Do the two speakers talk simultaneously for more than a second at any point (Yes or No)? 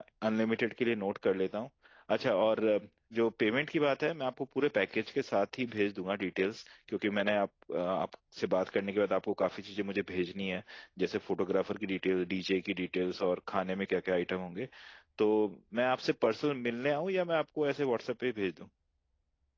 No